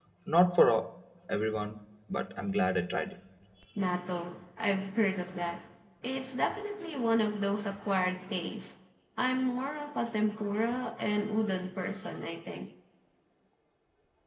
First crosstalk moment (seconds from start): none

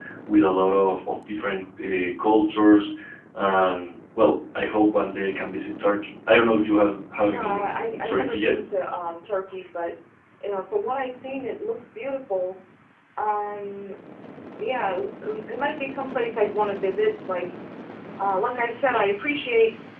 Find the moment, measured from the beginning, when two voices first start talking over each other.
7 s

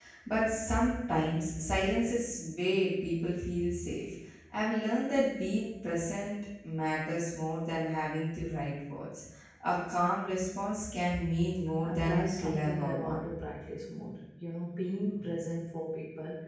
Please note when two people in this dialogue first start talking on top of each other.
12 s

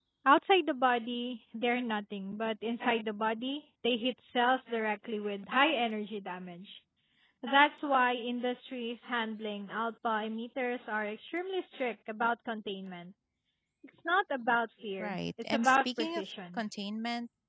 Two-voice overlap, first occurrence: 15 s

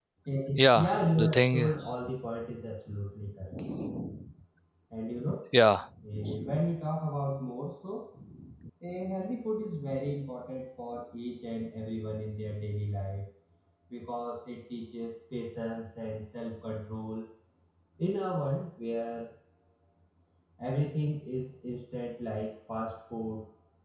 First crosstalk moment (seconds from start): 1 s

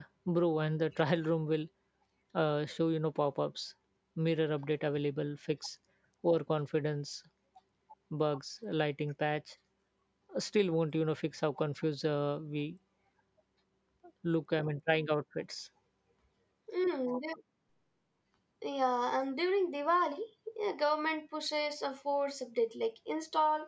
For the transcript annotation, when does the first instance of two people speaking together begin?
none

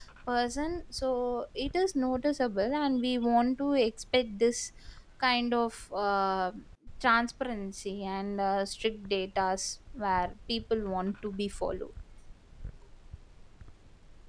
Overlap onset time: none

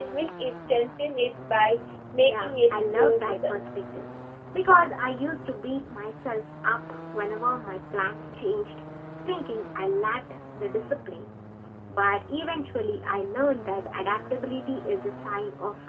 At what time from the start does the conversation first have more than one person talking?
2 s

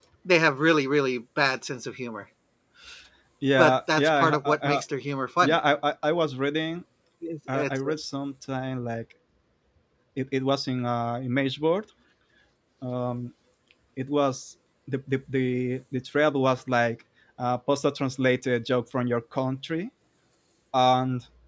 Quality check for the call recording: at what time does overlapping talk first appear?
4 s

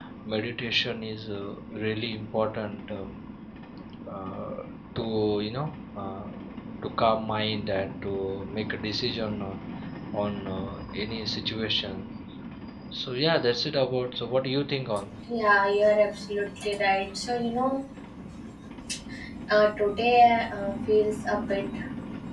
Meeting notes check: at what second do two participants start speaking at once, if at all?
none

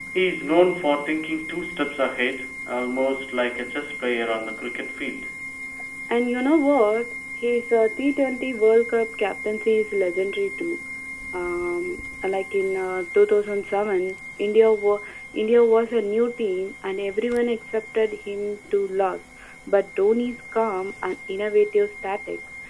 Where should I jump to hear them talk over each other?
none

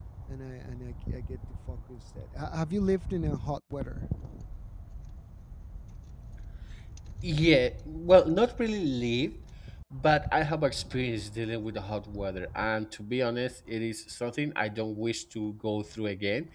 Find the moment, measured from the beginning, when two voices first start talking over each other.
none

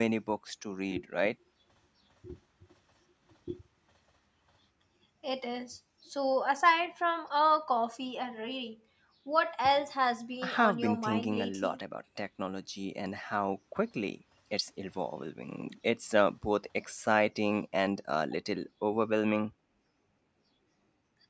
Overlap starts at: 10 s

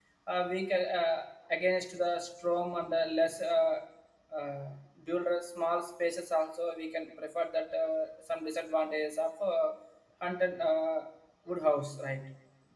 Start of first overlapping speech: none

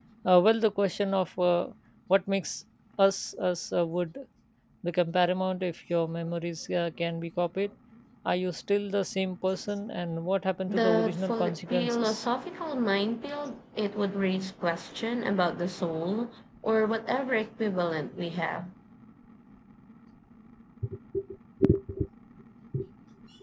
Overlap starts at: 11 s

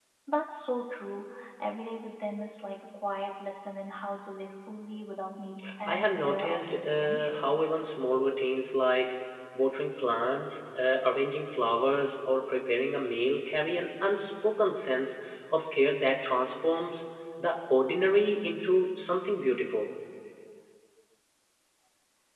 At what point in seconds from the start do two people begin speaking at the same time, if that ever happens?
6 s

